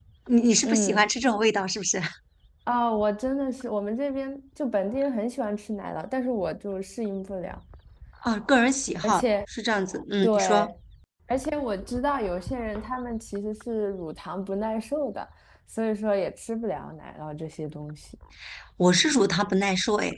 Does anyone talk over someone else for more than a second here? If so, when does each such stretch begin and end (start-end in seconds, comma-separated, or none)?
none